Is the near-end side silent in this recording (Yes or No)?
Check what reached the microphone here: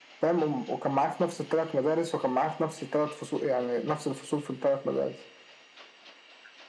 Yes